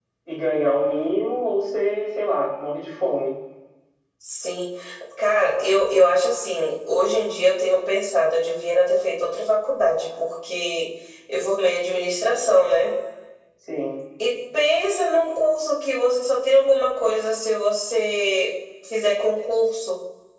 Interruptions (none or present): none